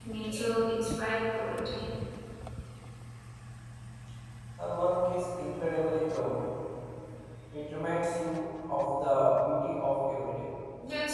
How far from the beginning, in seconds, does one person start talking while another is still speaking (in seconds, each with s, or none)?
none